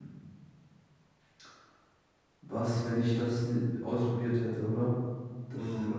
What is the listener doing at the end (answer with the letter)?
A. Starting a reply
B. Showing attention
A